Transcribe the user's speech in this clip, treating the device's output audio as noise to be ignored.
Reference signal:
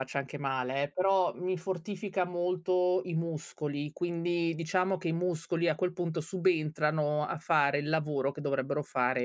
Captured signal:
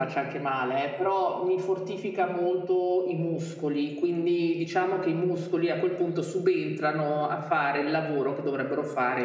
none

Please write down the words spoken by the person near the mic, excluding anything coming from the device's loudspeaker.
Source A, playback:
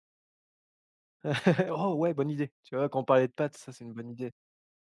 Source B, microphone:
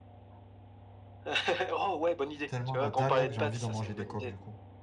Tellement la dalle, là, que j'ai envie d'en manger des coques, du coup.

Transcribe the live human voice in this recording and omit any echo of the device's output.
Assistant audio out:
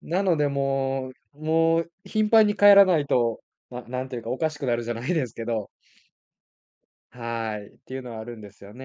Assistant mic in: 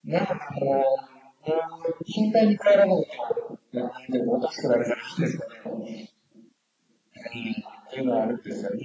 none

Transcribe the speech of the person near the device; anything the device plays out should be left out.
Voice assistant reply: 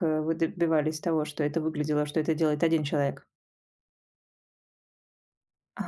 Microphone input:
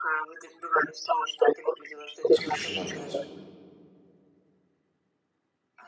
запрещено делать.

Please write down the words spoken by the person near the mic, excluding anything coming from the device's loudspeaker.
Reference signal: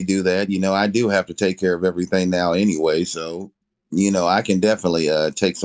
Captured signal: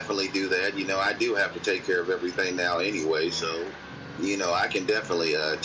none

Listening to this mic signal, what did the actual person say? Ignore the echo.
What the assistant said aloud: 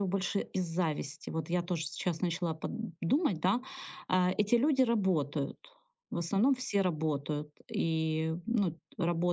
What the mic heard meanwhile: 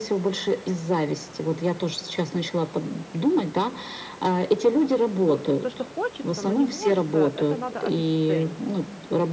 о то, что хочется, но не может а, это надо обесценить.

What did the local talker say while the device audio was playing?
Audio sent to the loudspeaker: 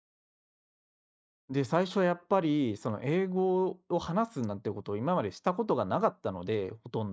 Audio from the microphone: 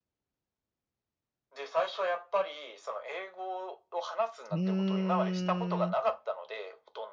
うーん。

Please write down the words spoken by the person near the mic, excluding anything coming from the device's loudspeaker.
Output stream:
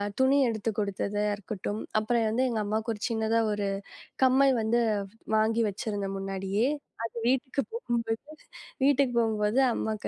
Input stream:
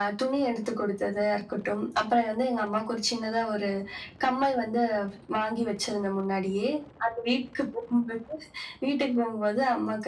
none

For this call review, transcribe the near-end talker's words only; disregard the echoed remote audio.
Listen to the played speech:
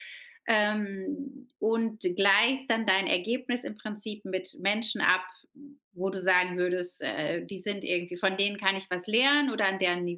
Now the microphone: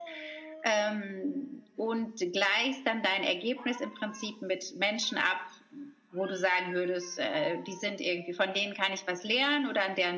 none

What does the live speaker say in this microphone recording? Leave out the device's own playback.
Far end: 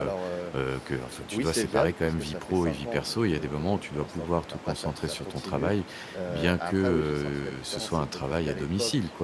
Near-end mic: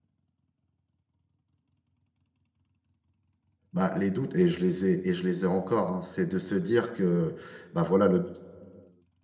bah, les doutes et je les ai et je les ai encore, hein. C'est de se dire que, bah, voilà le

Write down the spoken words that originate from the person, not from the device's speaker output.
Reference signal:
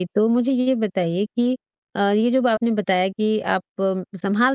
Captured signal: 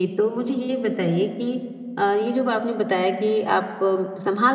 none

